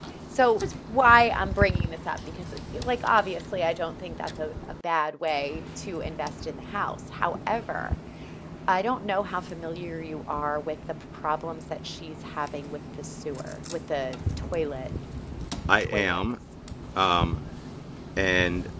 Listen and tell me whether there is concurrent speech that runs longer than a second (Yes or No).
No